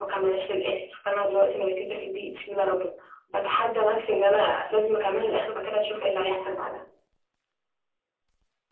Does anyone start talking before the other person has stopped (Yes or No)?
No